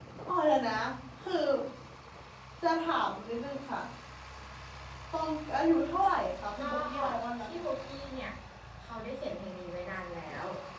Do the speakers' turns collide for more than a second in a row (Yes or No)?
No